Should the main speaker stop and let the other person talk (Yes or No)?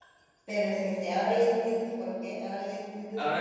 Yes